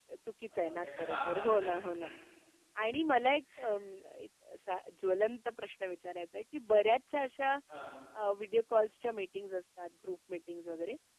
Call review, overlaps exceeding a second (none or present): present